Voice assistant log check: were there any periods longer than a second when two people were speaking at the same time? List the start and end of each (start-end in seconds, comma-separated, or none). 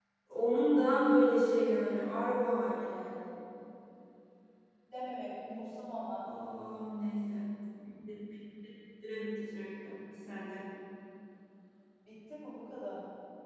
none